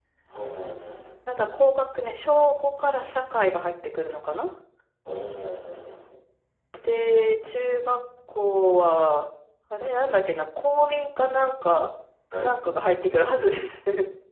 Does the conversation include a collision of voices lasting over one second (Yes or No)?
No